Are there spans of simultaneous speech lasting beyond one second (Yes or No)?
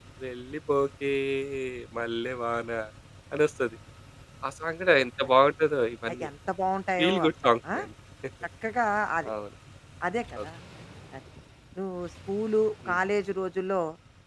No